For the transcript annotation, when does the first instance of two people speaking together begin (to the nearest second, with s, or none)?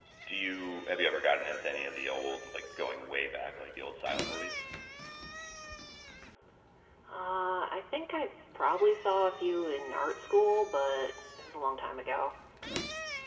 none